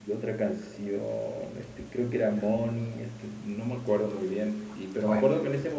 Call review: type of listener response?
listening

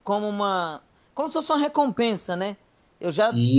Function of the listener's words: listening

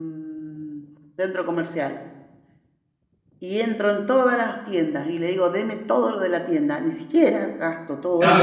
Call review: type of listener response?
taking over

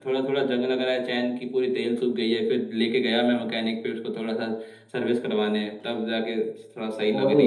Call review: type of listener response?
taking over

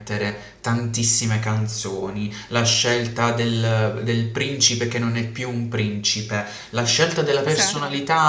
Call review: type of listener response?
listening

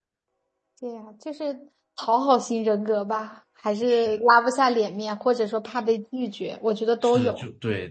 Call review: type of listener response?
taking over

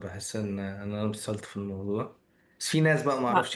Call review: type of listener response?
listening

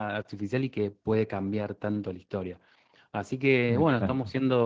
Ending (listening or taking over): listening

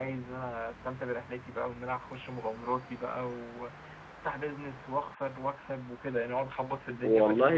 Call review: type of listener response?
taking over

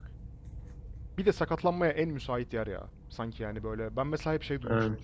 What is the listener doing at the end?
listening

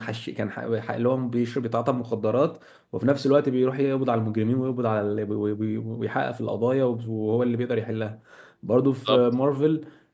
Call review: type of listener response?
listening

